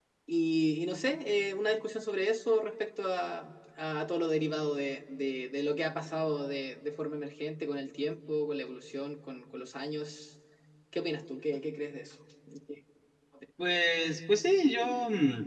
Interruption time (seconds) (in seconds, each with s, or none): none